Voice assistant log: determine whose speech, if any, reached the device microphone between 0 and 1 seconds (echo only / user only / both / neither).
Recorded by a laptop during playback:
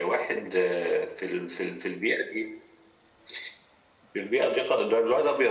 echo only